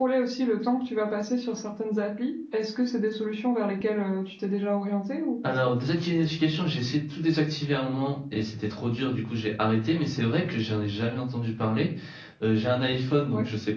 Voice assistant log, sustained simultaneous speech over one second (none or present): none